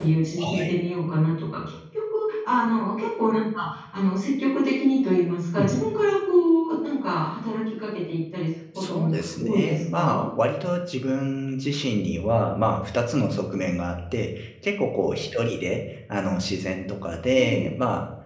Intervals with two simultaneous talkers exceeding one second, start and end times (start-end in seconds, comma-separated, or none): 8.8-10.2